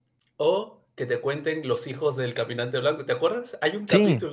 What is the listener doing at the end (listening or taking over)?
listening